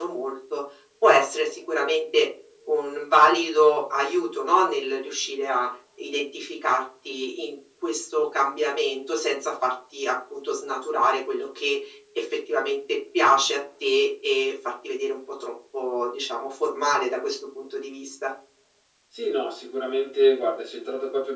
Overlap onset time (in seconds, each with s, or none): none